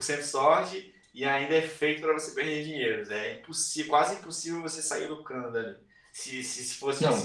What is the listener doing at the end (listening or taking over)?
listening